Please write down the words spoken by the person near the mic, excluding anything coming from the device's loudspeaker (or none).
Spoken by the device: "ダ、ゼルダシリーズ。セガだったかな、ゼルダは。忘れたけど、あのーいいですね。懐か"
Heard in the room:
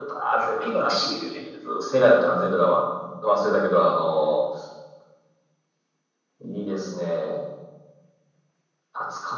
あ、ピのピピですよね。